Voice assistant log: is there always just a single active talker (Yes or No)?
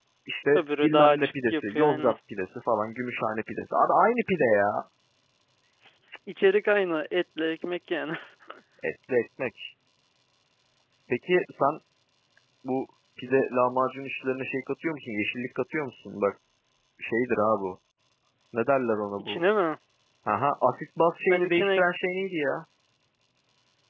No